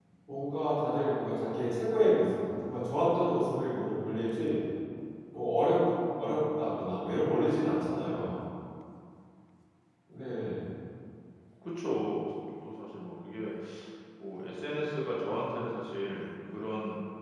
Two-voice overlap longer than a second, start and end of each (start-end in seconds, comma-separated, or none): none